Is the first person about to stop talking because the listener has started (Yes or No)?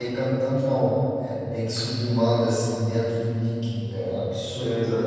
Yes